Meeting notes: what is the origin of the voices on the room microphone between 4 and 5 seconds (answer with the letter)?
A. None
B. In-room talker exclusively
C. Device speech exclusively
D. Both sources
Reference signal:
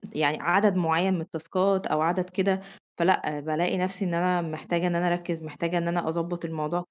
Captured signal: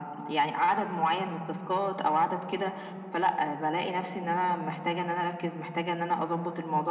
C